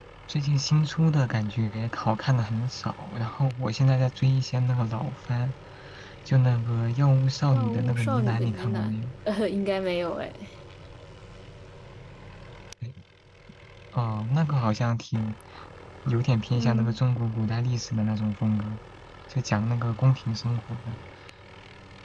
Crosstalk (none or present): present